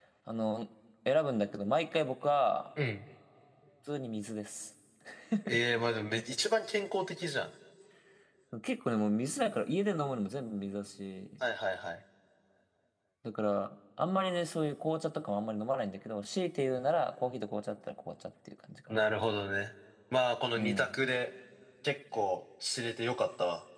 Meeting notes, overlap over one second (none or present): none